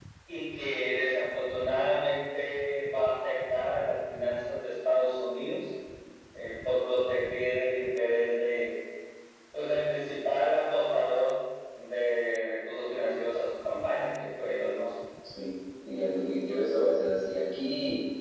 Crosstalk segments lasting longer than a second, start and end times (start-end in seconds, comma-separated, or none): none